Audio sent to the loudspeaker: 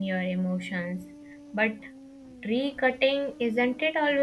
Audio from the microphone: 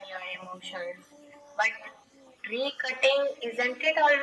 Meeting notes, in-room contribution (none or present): none